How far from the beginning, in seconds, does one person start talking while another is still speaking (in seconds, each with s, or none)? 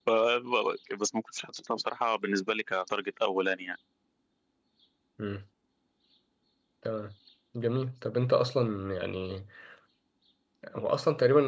none